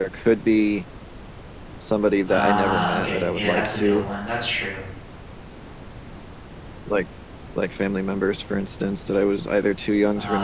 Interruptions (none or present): present